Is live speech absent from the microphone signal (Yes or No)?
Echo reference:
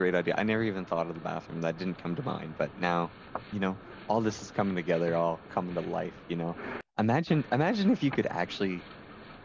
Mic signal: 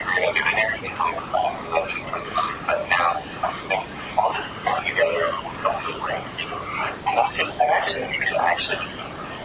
Yes